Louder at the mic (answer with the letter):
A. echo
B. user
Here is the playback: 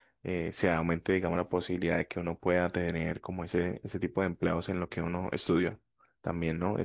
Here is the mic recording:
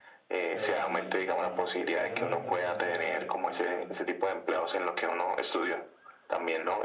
A